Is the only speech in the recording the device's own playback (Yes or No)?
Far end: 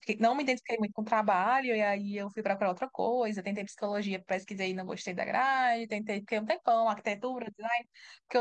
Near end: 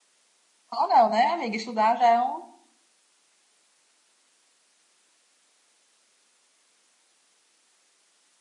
No